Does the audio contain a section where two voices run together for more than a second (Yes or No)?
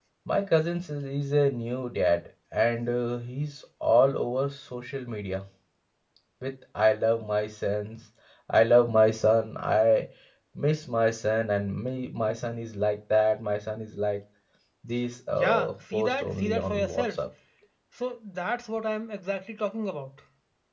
Yes